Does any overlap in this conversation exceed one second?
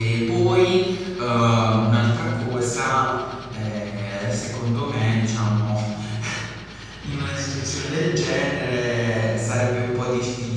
No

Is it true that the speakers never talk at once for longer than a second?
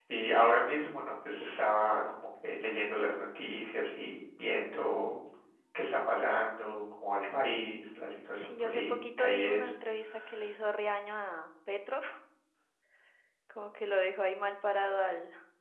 No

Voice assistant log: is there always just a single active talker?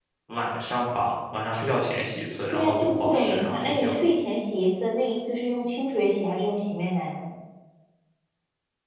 No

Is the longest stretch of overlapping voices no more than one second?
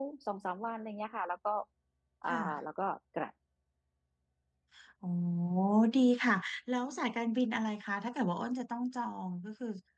Yes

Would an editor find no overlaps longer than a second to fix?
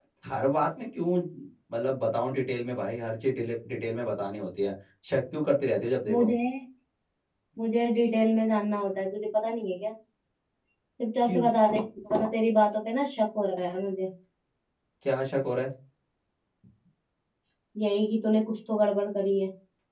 Yes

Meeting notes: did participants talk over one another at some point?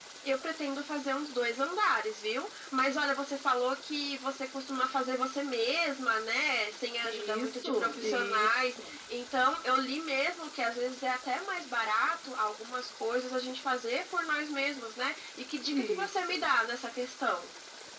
Yes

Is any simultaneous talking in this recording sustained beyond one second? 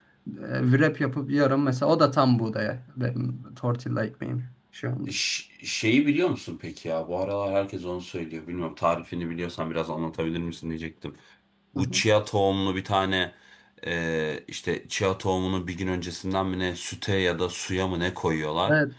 No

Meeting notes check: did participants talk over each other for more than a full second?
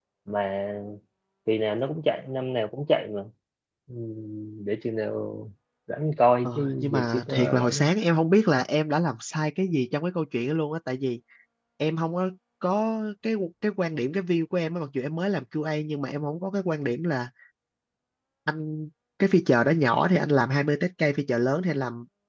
Yes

